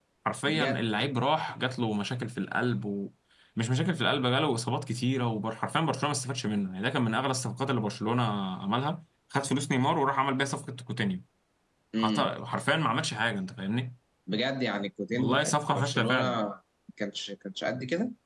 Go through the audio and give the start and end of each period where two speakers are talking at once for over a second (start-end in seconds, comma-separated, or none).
15.2-16.4